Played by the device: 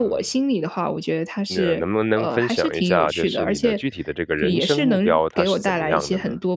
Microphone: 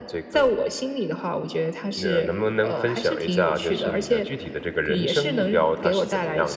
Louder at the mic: echo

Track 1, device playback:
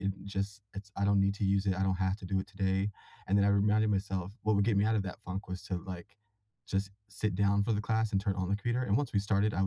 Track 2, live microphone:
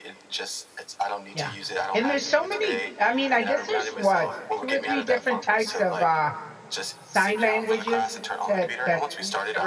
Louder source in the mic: user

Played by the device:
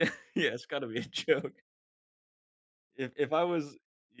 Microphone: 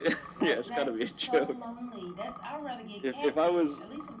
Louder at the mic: echo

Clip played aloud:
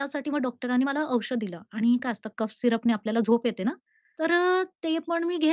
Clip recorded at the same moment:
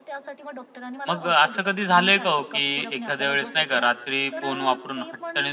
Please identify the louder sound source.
user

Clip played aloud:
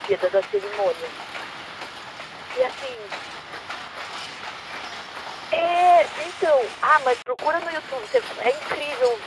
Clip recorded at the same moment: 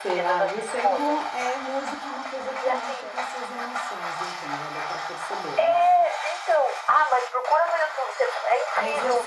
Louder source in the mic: echo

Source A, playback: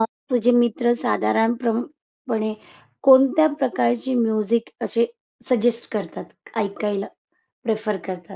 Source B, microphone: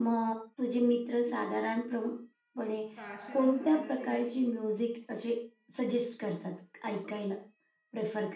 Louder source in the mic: echo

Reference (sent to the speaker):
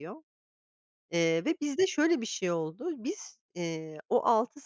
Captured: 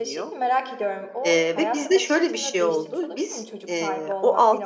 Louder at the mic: echo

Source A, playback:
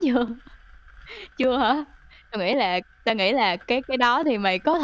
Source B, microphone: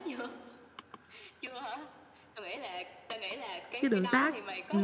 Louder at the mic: user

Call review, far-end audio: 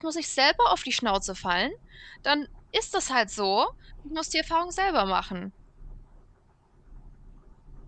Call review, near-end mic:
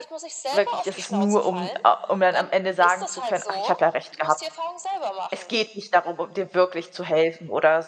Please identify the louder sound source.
user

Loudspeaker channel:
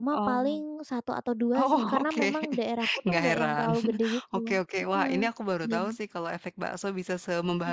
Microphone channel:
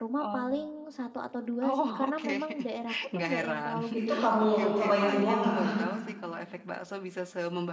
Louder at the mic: user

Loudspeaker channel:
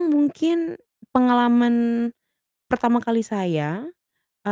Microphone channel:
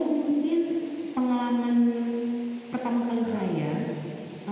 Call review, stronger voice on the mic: echo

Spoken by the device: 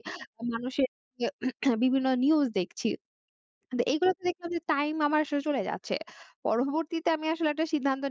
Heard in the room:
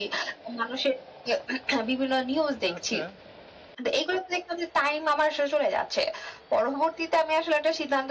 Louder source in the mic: echo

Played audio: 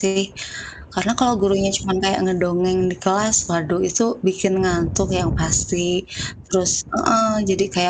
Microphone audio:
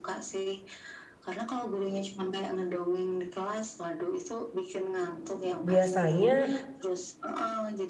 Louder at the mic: user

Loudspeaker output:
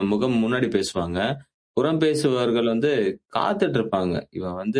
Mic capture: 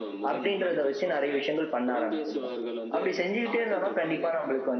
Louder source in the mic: user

